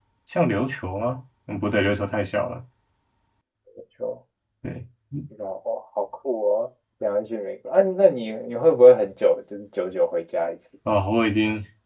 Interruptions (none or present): none